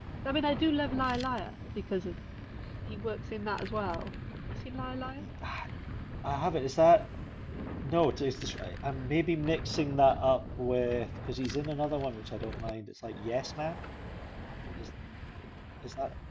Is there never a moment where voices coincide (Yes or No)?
Yes